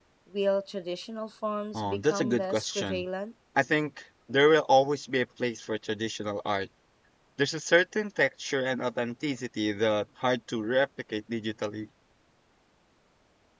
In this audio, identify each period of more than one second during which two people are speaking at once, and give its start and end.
1.7-3.0

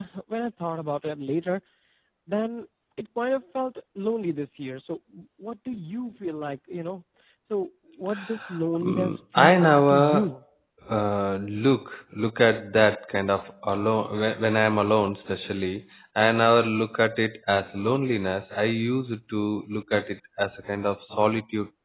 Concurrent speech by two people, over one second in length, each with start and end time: 8.8-10.2

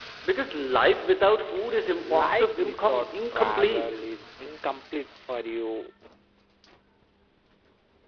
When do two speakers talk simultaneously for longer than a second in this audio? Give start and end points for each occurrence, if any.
2.0-4.0

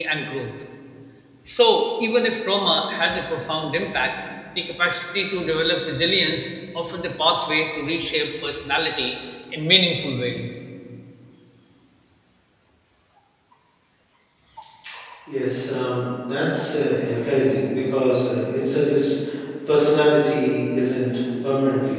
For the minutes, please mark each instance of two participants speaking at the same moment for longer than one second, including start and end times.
none

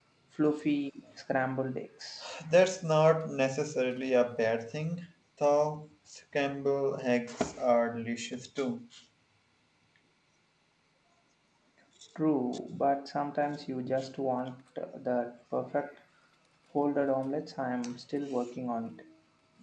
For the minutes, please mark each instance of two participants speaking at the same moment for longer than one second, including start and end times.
none

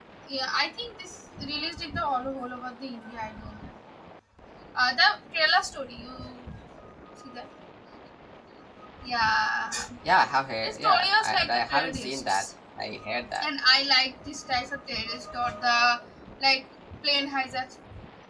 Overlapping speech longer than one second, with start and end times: 10.6-12.4

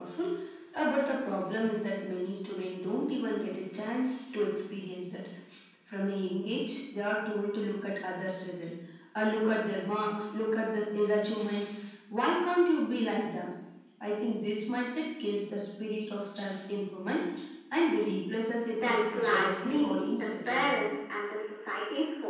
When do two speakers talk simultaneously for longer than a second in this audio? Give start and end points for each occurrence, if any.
18.7-20.7

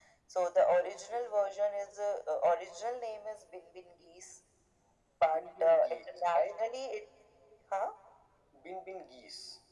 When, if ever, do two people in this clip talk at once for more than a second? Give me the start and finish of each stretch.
5.2-6.6

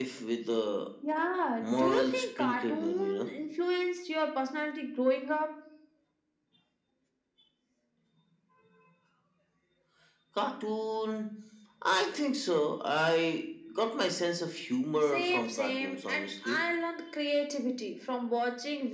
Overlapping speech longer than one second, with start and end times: 1.6-3.3, 15.0-16.6

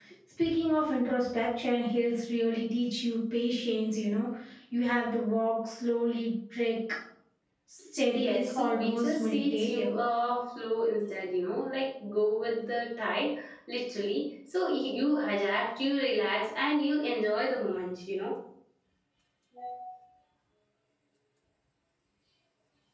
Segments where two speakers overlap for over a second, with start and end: 8.1-9.9

